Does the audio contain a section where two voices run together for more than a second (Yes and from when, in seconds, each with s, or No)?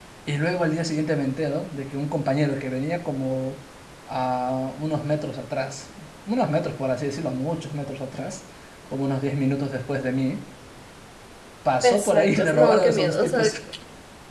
Yes, from 11.8 s